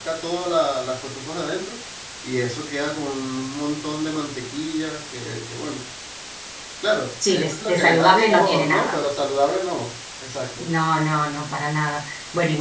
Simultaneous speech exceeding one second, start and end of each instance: 7.3-9.0

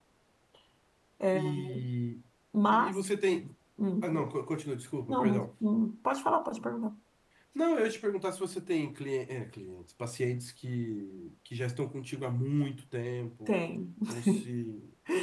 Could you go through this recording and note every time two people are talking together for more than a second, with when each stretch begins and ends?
none

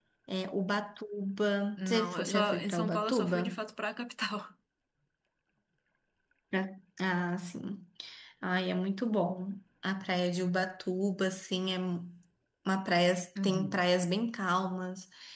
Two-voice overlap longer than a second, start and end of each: 1.8-3.6

